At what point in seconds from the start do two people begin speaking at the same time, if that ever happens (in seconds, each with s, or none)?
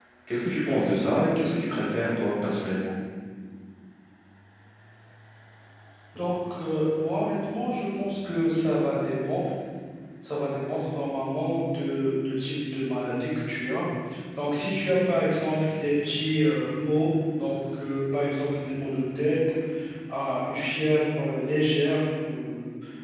none